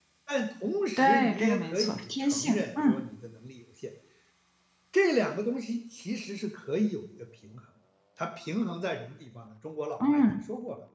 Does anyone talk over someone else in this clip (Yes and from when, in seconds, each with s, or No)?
Yes, from 1.0 s